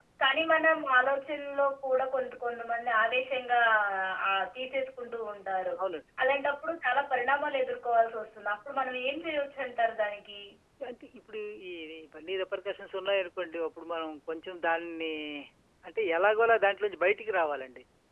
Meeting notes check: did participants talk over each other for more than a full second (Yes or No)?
No